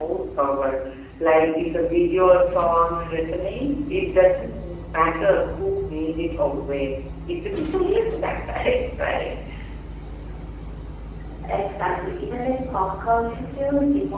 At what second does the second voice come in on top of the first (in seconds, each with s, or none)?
none